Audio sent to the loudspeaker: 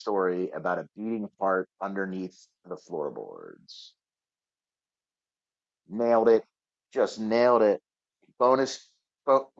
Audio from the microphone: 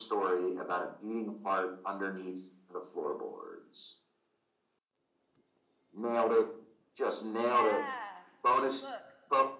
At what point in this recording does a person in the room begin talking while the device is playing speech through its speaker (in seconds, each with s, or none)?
7.4 s